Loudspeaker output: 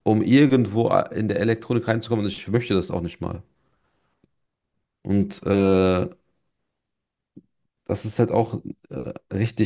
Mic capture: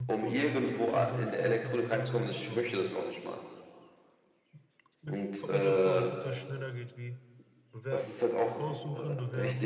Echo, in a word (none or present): present